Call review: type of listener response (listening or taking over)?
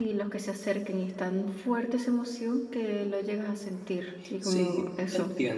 taking over